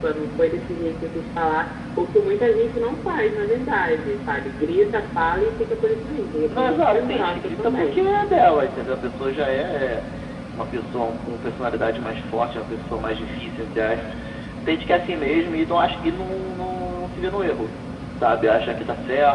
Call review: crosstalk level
present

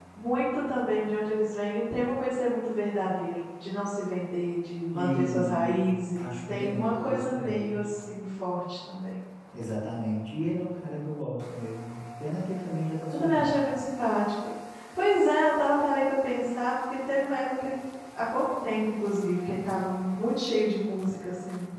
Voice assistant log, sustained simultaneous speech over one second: present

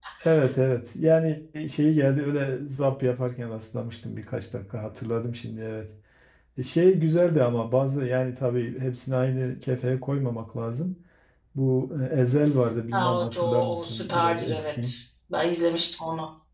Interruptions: present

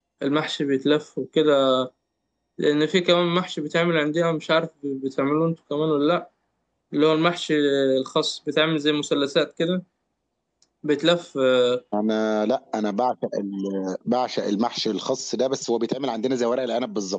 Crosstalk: none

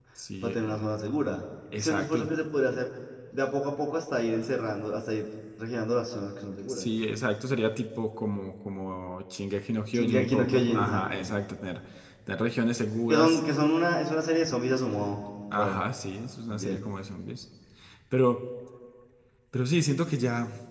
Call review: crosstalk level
present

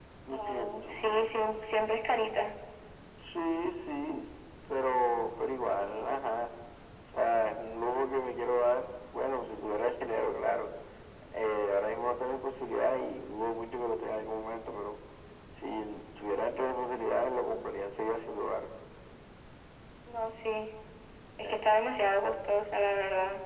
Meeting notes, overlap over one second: present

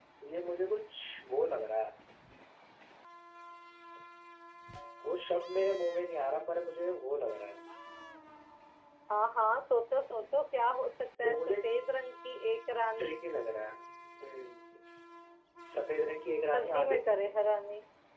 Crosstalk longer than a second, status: none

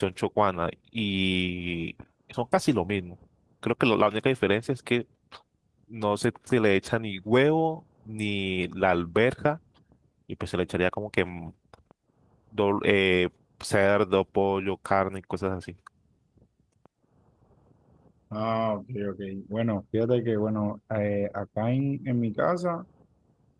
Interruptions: none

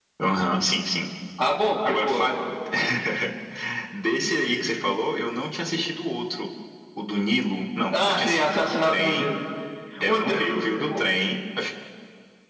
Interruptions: present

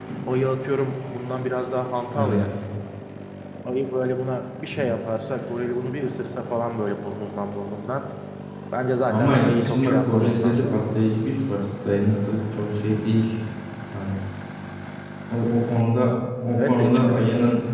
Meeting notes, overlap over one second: present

